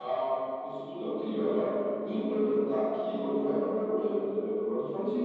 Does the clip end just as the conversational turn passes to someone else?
Yes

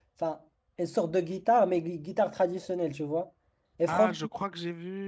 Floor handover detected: Yes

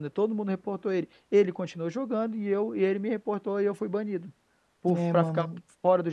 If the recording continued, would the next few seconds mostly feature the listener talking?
No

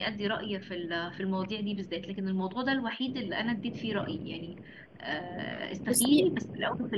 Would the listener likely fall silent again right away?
Yes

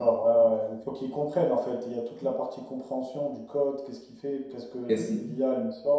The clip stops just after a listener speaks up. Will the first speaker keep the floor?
Yes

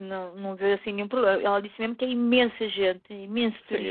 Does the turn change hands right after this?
Yes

